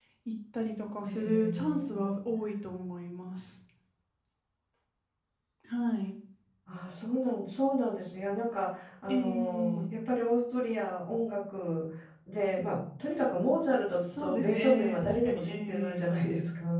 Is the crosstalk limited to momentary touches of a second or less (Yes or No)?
No